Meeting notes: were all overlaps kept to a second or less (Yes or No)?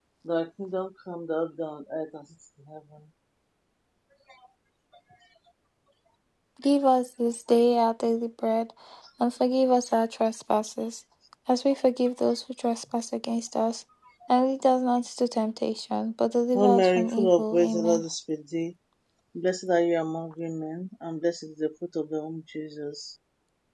No